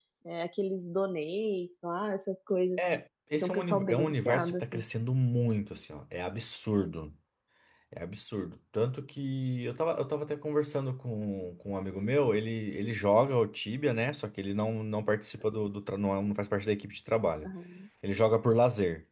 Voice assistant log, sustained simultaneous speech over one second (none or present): present